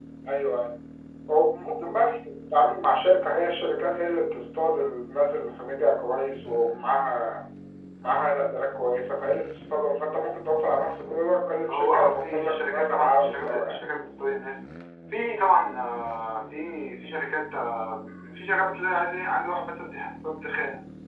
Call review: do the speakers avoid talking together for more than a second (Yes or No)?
No